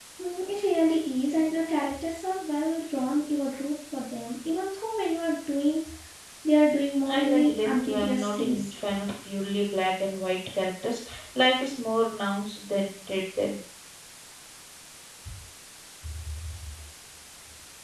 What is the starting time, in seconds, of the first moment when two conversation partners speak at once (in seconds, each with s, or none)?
7.0 s